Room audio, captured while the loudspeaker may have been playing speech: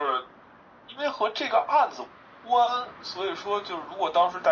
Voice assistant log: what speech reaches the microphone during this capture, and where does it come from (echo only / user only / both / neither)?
echo only